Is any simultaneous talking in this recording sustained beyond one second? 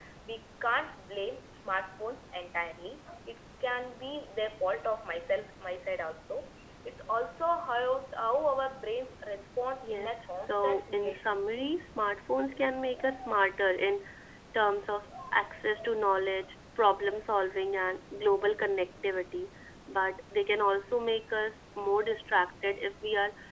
Yes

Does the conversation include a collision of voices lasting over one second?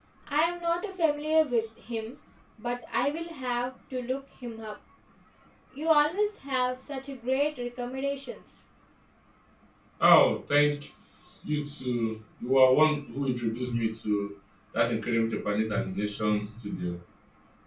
No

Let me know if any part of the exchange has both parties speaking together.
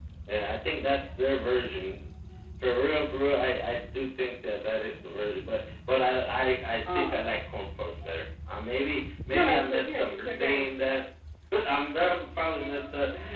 Yes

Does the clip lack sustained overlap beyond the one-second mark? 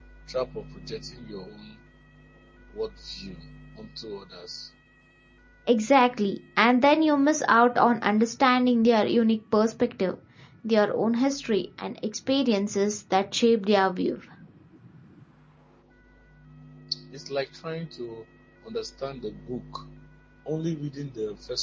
Yes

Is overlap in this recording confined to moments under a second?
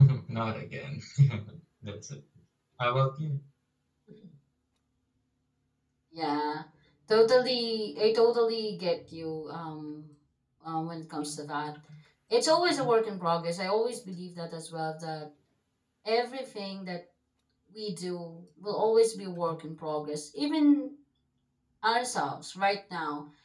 Yes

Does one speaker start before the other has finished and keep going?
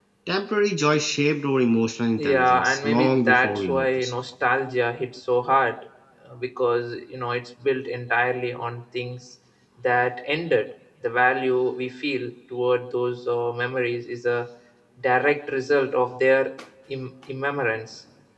Yes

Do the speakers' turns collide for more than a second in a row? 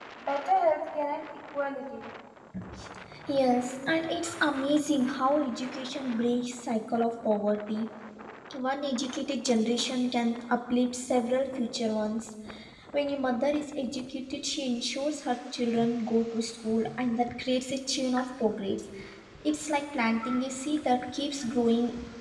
No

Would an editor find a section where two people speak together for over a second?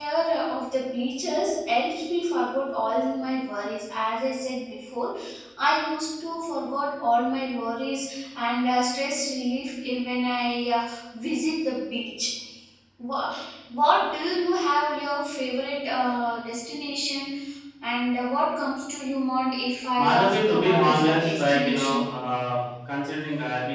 Yes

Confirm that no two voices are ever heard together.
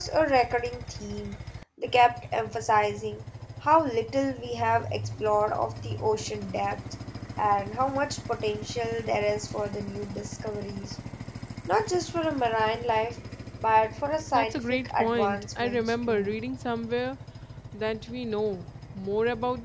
No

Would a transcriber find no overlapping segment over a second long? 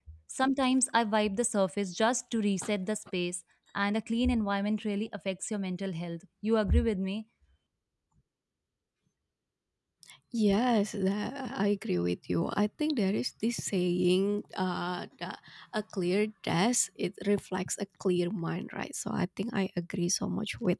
Yes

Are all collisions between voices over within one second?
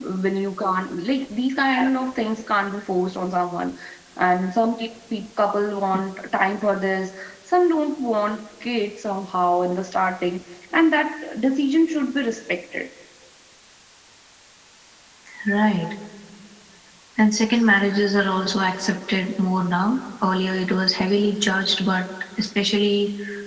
Yes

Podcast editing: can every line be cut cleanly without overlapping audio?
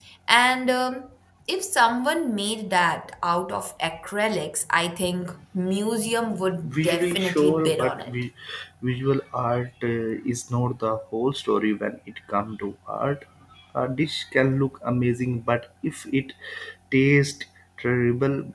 No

